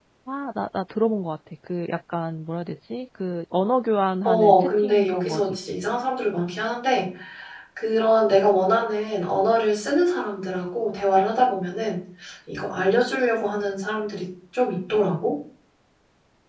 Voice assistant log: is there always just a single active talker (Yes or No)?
No